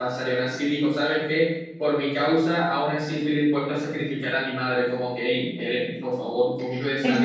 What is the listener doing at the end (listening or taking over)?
taking over